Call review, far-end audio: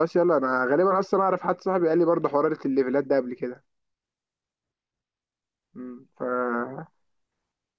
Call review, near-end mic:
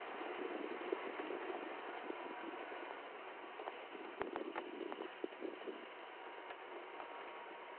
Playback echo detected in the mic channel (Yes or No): No